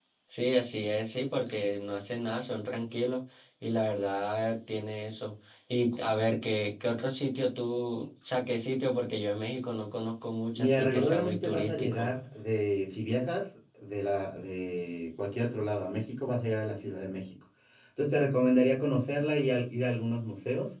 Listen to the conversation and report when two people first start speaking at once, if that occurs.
10.6 s

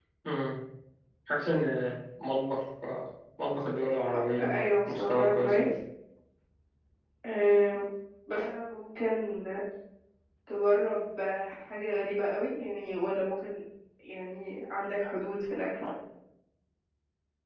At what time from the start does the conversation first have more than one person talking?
4.4 s

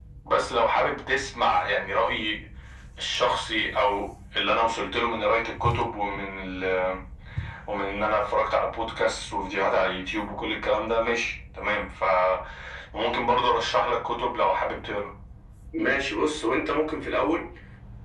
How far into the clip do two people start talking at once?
none

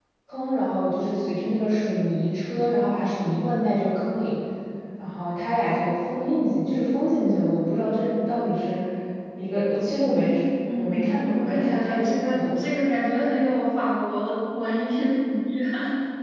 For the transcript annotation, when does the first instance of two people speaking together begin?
10.7 s

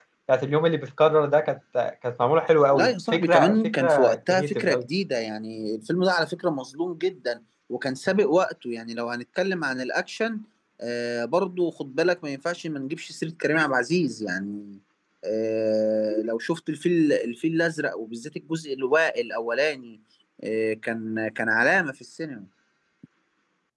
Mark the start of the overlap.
2.8 s

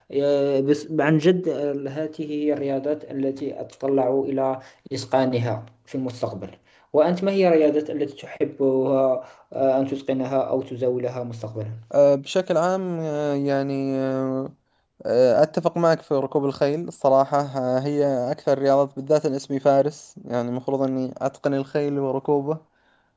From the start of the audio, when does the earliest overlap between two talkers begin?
none

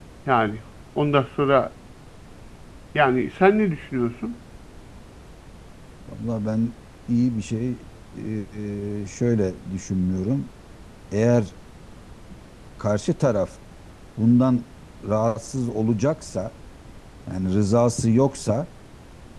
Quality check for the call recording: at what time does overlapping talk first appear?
none

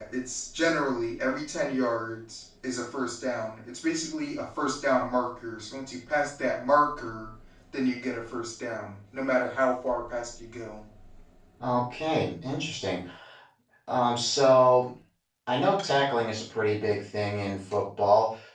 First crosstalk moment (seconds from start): none

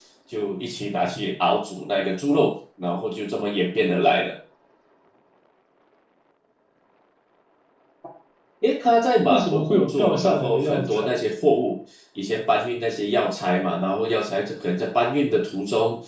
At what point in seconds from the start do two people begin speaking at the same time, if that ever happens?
9.3 s

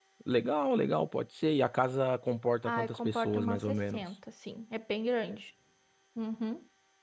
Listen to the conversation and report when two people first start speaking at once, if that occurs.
2.6 s

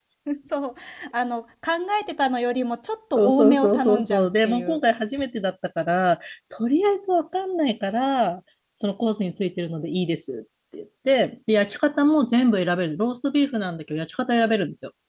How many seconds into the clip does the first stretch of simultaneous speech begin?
3.2 s

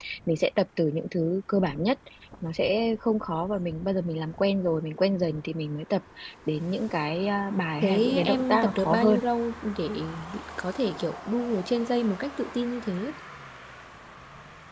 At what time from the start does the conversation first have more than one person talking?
7.8 s

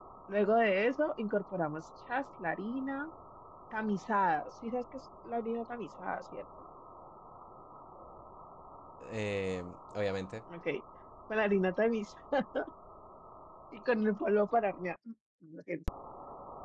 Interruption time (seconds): none

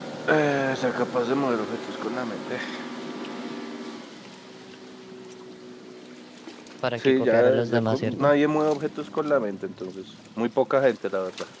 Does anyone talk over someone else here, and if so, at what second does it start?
7.0 s

